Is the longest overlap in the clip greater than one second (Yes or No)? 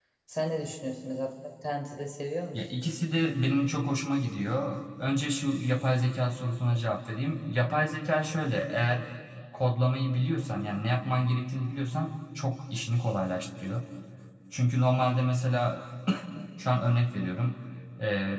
No